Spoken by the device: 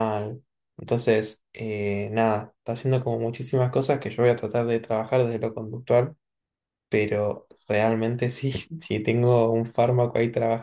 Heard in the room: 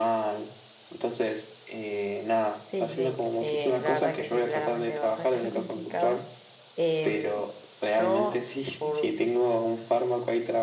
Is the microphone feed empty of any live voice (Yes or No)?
No